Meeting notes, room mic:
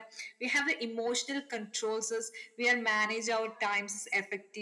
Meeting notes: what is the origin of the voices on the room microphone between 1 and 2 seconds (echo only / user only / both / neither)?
echo only